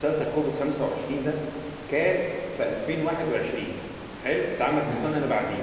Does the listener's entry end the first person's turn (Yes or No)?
No